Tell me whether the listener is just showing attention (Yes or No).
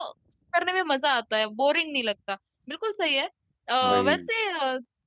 Yes